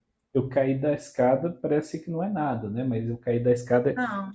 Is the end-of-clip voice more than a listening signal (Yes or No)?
Yes